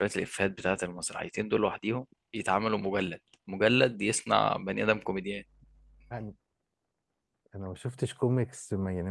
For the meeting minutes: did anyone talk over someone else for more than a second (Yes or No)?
No